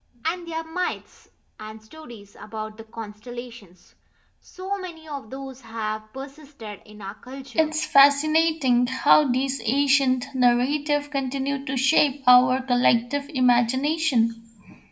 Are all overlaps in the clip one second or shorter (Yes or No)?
Yes